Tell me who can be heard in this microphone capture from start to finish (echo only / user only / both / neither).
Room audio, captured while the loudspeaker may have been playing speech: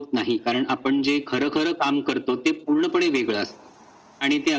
echo only